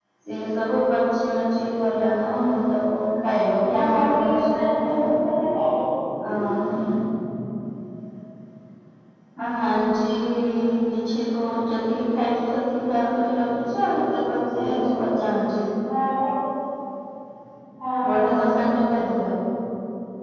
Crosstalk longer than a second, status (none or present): present